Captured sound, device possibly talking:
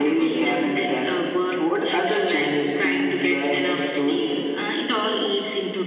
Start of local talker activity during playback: none

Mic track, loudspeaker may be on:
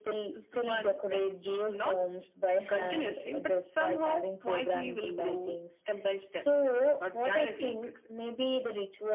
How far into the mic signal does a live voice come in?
none

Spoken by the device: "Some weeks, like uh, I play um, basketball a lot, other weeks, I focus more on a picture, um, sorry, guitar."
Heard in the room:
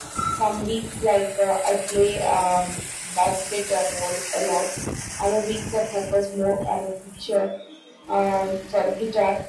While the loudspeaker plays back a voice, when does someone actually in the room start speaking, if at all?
none

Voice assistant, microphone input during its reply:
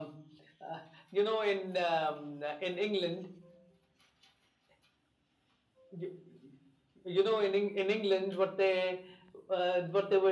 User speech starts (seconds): none

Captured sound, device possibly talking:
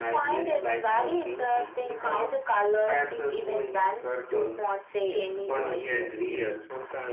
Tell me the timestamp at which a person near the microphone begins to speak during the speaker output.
5.5 s

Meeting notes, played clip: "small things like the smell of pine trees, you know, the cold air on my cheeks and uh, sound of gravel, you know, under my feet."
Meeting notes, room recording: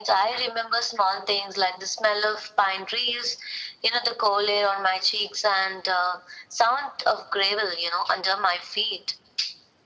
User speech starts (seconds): none

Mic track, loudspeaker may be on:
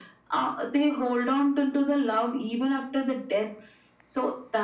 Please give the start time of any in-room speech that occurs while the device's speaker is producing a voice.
none

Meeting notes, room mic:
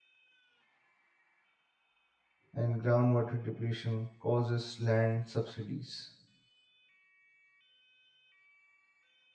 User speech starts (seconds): 2.5 s

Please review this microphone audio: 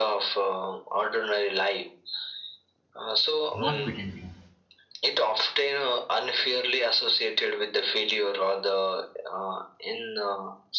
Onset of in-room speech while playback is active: 3.6 s

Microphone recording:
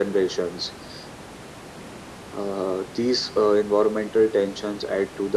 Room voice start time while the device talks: none

